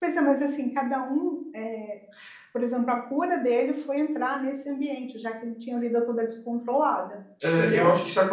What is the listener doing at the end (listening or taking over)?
taking over